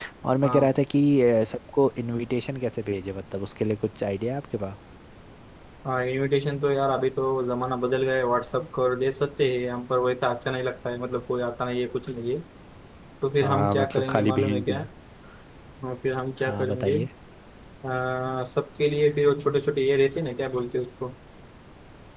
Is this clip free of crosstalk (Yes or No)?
No